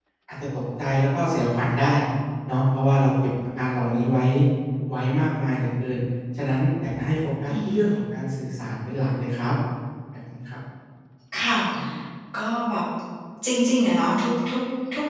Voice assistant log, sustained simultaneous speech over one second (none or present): none